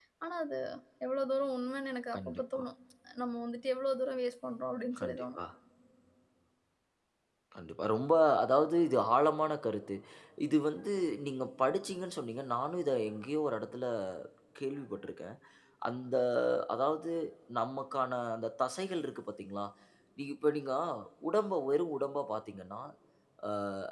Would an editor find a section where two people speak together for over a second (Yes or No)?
No